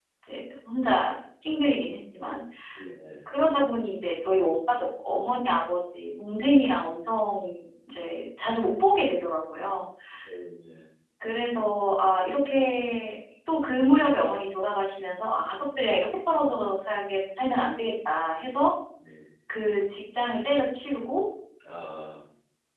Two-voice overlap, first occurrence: none

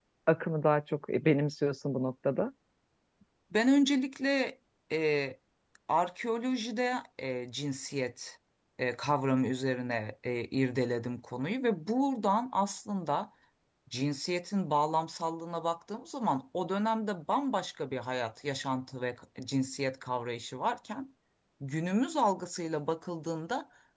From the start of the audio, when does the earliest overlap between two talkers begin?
none

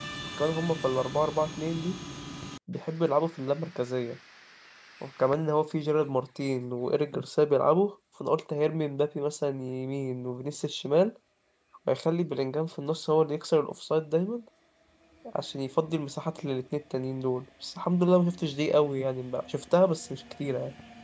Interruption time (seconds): none

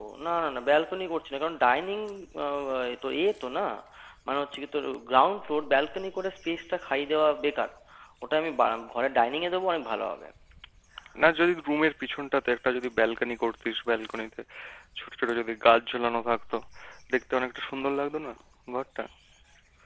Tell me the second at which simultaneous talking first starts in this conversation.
none

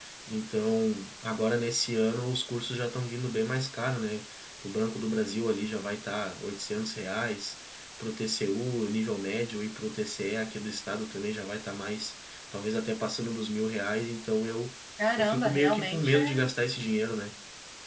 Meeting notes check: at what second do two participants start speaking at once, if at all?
15.2 s

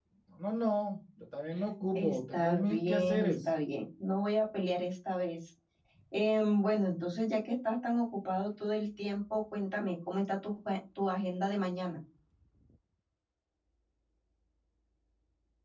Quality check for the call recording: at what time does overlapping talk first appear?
1.9 s

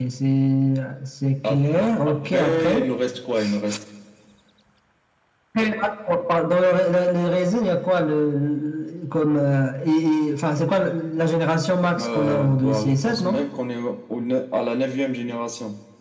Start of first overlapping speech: 1.5 s

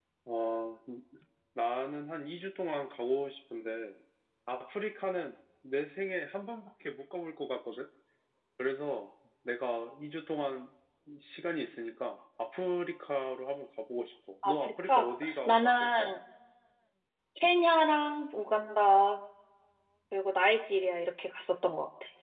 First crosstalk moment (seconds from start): 14.4 s

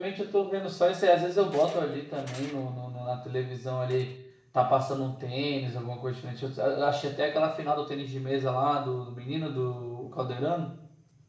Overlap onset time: none

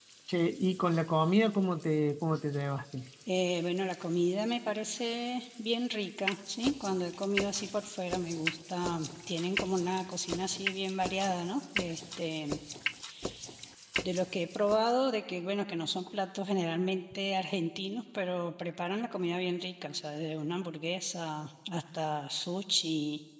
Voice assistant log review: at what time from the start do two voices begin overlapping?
none

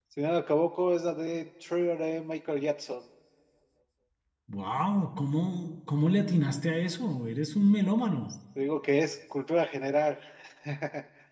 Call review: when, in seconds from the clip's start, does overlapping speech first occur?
none

